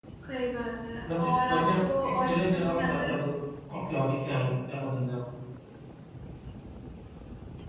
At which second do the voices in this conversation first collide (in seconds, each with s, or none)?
1.2 s